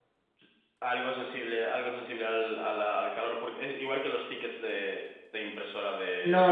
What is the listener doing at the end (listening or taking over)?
taking over